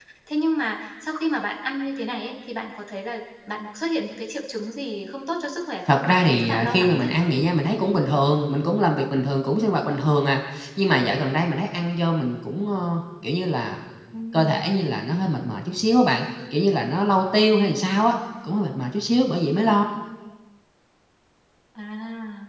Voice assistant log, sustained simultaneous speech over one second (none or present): present